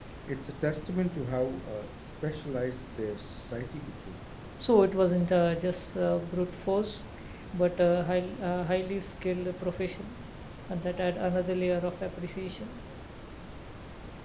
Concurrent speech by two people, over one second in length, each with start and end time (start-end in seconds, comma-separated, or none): none